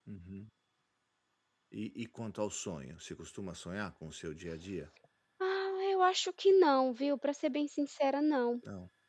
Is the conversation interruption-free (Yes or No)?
Yes